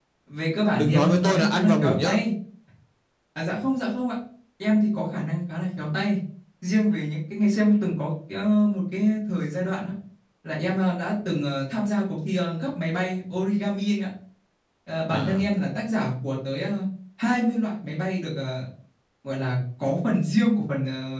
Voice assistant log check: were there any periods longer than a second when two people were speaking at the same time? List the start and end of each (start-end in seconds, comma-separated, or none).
0.8-2.1